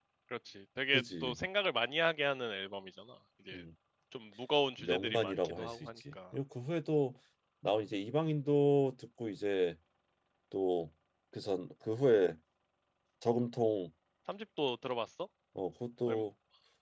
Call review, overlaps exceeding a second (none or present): present